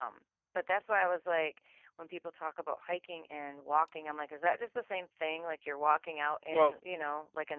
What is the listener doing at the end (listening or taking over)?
listening